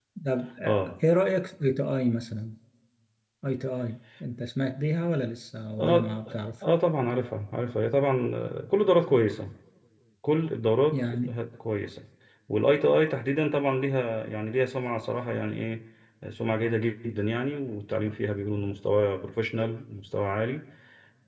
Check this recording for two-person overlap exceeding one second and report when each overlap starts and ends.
none

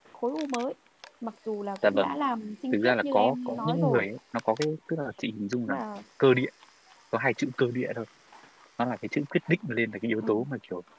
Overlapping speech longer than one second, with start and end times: 2.7-4.0

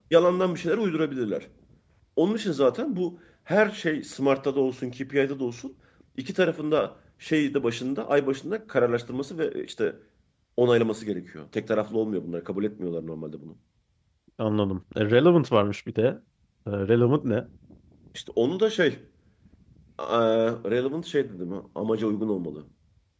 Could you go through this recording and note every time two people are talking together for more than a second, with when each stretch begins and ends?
none

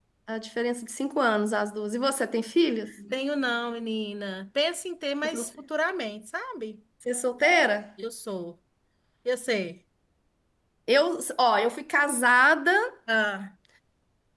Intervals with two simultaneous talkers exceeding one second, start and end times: none

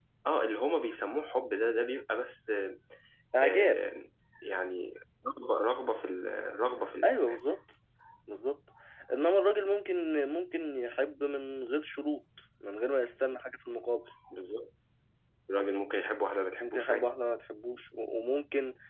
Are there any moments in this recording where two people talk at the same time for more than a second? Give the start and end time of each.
none

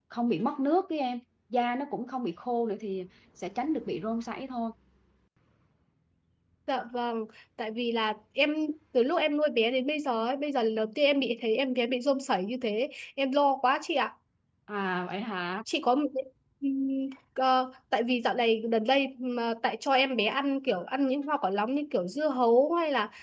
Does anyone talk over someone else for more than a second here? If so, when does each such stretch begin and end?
none

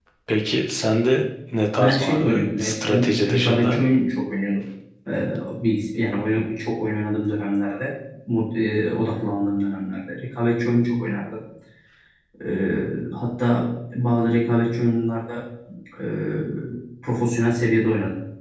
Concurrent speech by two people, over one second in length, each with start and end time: 1.8-3.8

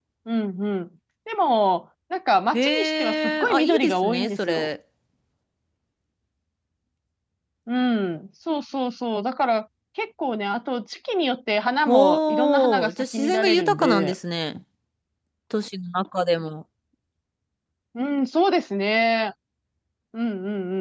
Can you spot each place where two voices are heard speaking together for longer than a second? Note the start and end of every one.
2.5-4.7, 11.9-14.1

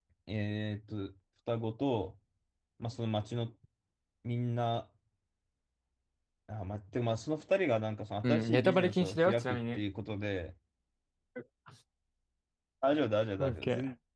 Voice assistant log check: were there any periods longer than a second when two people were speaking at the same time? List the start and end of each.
8.2-9.8

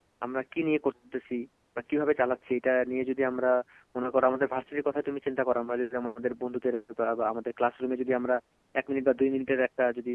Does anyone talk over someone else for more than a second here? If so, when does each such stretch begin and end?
none

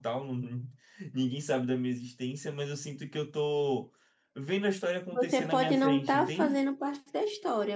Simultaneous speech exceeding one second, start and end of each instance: 5.1-6.6

